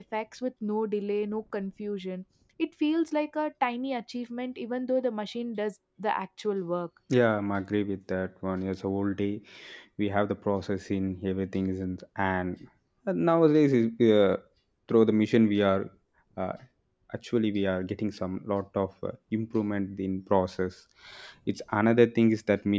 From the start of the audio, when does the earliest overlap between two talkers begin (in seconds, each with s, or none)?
none